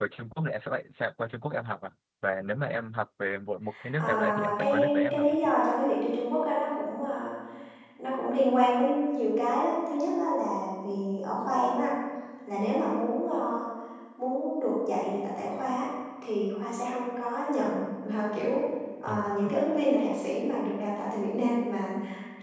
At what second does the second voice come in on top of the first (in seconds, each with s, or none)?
3.9 s